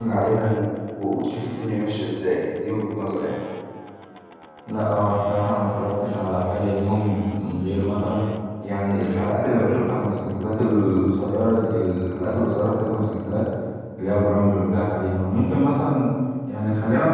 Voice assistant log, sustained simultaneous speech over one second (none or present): none